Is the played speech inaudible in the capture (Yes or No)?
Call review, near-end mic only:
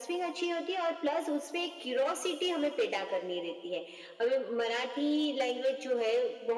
No